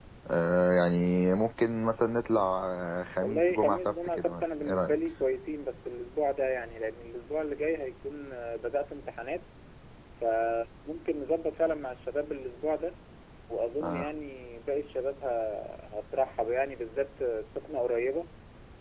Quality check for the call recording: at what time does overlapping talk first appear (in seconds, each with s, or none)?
3.2 s